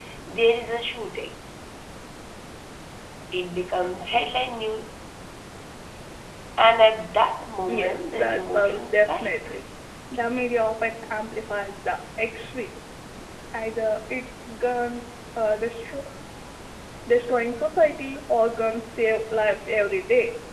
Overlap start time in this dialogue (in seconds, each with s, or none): 7.6 s